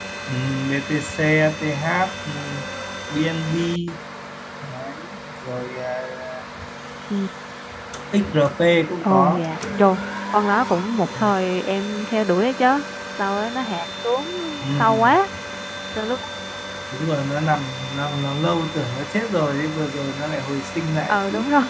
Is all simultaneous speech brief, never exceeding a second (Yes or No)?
Yes